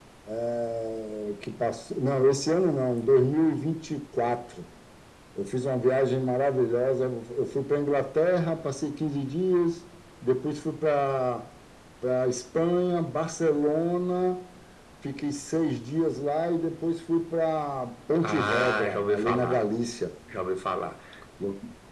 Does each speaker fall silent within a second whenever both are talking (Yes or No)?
No